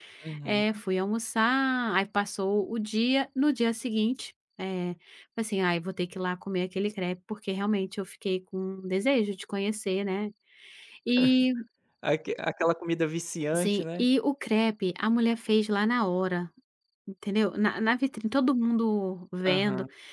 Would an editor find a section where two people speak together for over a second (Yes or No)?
No